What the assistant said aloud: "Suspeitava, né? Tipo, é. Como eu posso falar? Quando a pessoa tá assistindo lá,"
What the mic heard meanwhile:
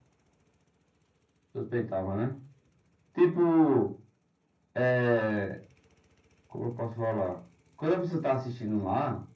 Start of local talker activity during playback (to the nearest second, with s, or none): none